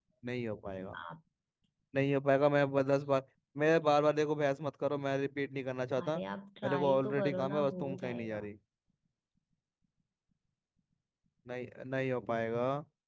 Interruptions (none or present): present